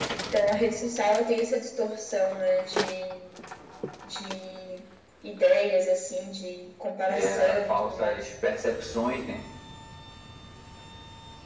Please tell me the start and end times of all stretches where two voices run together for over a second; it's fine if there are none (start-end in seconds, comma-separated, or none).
7.0-8.3